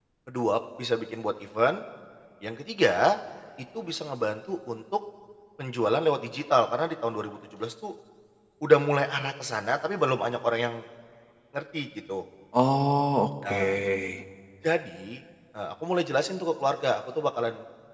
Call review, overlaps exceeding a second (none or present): none